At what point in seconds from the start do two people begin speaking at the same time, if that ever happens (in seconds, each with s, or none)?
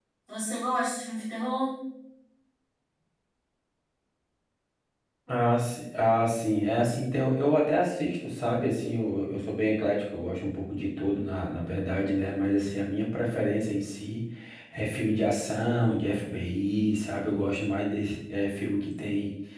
none